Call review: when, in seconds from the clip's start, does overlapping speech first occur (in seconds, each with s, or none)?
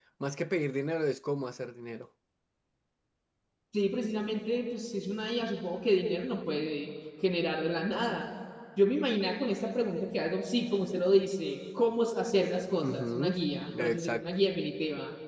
12.8 s